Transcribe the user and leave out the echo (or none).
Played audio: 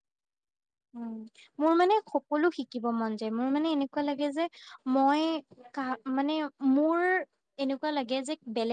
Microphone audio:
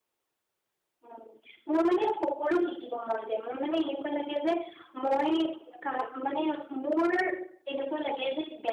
none